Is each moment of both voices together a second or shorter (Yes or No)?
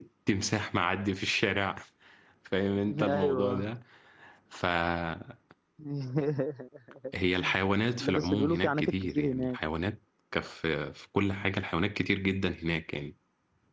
No